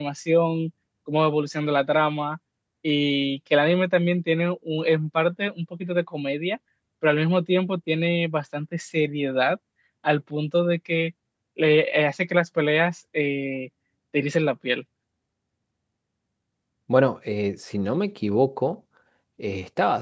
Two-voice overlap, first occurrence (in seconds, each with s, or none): none